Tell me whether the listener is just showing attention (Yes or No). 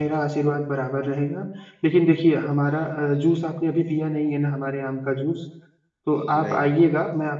Yes